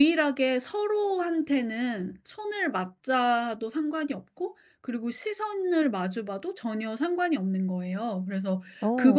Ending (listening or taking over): listening